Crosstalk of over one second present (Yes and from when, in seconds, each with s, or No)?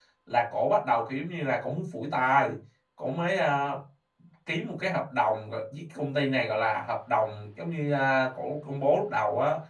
No